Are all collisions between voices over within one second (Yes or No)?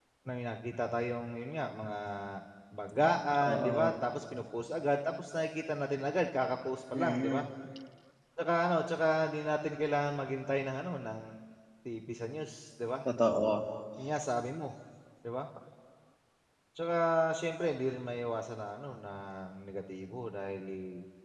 Yes